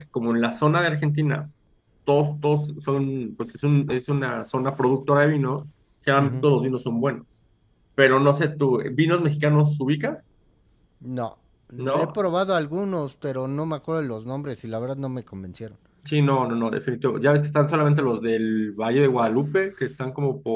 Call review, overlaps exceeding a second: none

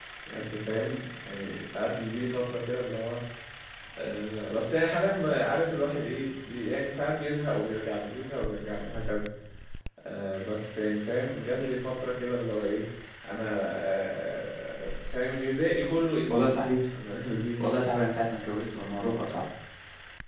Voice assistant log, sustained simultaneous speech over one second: none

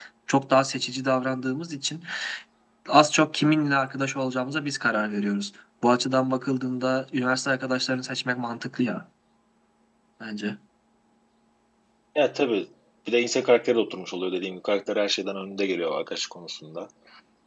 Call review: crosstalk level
none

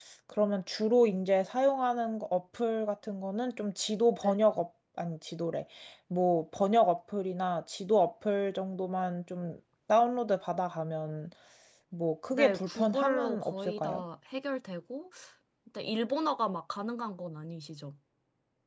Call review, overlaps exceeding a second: present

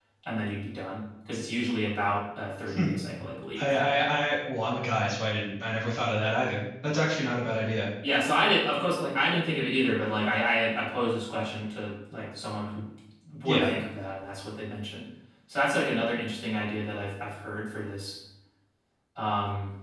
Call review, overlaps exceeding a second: none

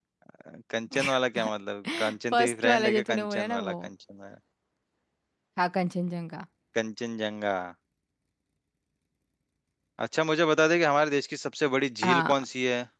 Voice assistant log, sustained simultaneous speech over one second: present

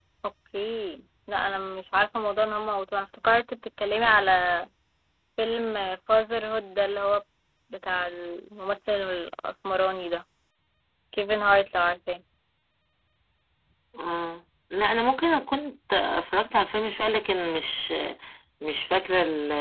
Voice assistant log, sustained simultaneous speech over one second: none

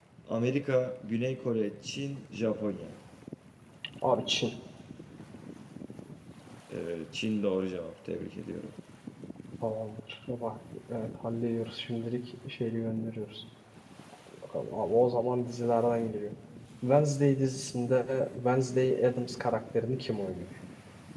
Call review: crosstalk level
none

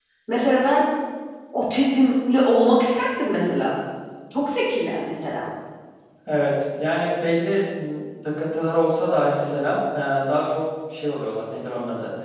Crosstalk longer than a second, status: none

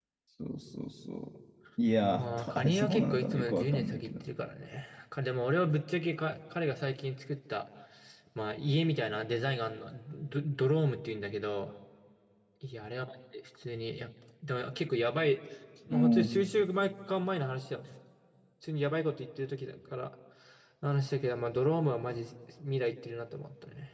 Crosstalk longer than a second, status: present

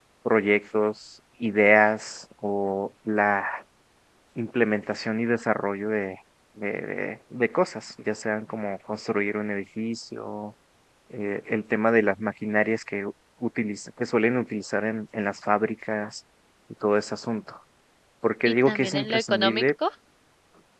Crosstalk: present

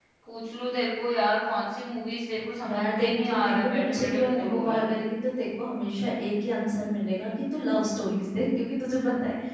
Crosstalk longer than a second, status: present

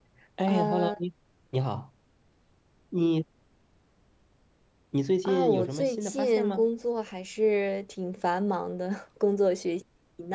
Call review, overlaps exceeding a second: present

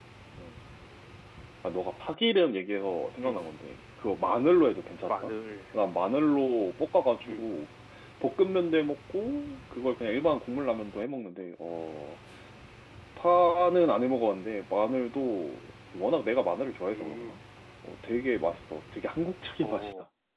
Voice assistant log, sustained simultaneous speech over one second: none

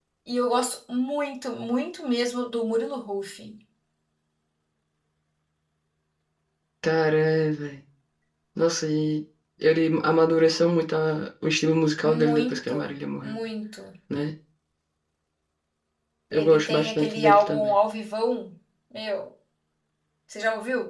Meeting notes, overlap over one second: present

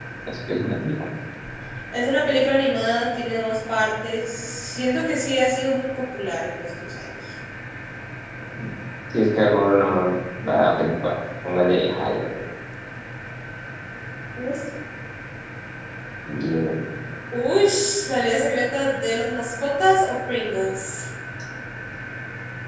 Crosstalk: none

